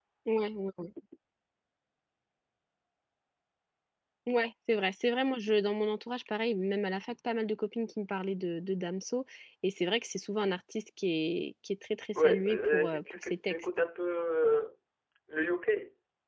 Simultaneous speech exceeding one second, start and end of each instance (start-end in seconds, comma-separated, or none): 12.2-13.7